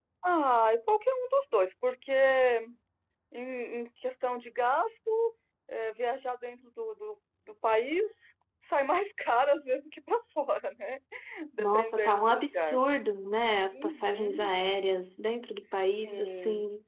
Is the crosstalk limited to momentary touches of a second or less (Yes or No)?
No